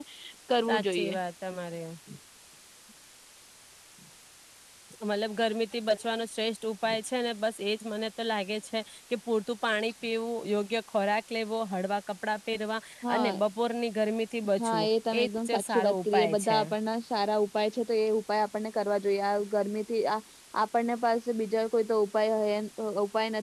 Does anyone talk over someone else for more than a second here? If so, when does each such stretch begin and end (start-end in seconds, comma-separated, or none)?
14.6-16.6